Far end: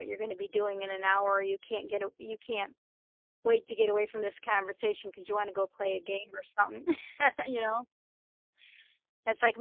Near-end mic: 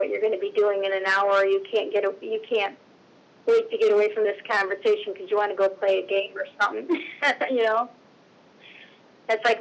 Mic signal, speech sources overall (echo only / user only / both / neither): echo only